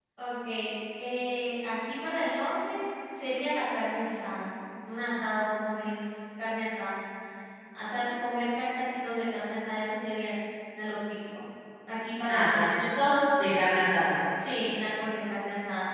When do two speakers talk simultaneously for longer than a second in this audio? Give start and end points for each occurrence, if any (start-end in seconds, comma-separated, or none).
none